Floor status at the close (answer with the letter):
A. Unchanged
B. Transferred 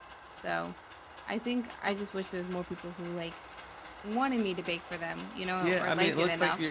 B